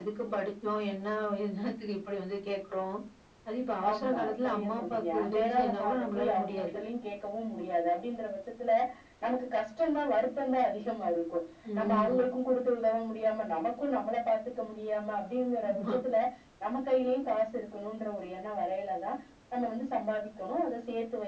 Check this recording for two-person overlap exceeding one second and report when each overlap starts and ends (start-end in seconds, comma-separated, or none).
3.9-6.7